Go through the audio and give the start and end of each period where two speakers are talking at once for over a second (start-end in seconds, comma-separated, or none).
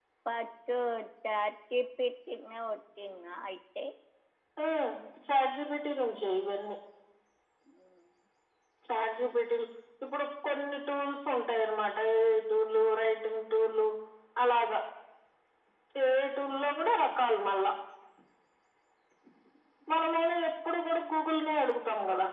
none